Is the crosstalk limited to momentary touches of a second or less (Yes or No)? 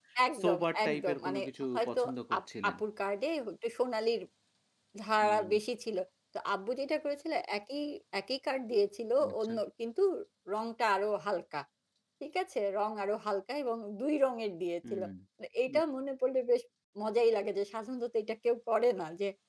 No